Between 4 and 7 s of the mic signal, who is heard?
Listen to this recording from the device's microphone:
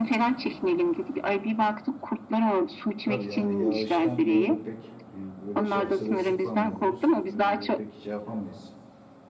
both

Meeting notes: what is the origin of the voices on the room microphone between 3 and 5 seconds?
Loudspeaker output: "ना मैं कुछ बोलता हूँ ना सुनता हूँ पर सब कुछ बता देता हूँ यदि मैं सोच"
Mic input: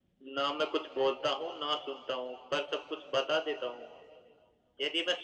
echo only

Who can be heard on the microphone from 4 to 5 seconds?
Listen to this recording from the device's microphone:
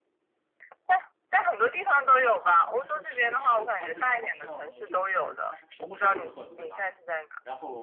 both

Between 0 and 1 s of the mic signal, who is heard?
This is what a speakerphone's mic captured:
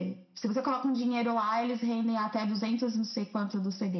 echo only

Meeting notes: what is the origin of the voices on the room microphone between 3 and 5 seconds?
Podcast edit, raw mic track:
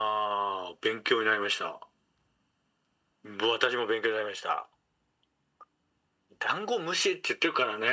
echo only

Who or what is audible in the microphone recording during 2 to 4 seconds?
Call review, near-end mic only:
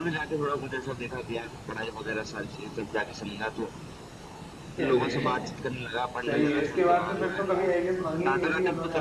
echo only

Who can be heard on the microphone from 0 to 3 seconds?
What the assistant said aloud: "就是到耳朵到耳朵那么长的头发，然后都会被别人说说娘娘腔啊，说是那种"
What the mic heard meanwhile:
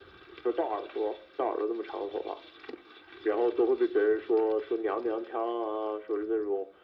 echo only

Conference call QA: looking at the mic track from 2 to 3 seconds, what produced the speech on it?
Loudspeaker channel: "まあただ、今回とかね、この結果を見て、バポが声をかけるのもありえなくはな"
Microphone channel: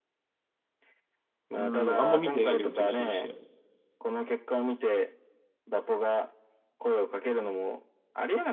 both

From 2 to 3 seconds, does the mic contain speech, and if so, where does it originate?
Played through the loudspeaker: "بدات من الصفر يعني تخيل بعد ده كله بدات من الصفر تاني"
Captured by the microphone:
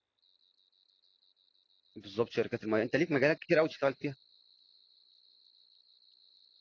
user only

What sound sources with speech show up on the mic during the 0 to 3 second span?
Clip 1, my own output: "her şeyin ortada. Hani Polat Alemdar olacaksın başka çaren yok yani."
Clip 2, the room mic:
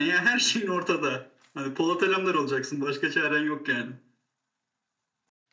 echo only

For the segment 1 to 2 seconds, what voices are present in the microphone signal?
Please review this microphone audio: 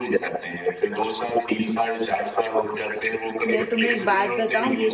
echo only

